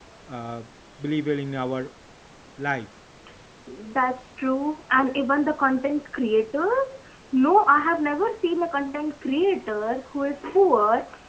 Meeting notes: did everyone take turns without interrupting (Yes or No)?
Yes